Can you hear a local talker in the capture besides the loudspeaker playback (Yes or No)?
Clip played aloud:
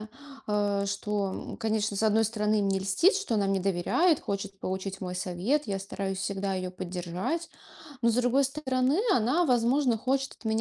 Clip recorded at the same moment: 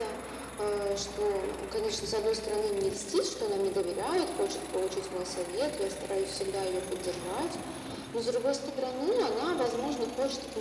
No